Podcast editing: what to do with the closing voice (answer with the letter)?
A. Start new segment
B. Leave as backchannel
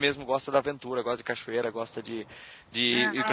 A